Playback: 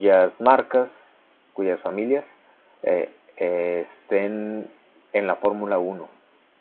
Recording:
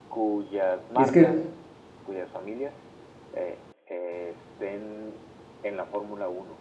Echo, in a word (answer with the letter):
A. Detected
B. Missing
A